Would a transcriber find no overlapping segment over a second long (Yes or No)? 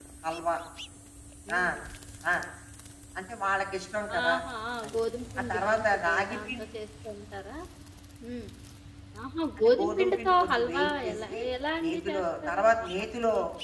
No